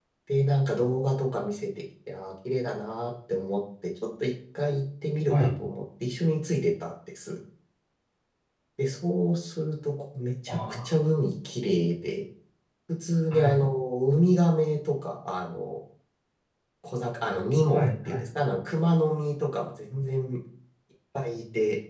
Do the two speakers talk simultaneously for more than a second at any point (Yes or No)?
No